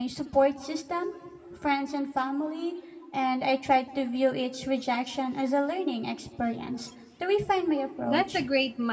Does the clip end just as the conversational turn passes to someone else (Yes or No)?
Yes